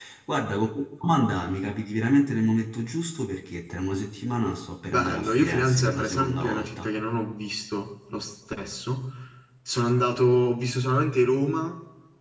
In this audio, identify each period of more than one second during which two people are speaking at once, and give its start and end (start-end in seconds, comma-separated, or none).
4.9-6.9